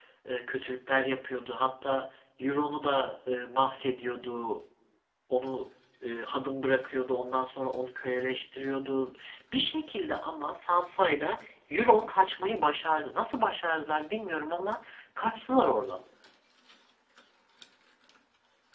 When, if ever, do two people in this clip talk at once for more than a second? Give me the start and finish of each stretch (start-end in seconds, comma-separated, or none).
none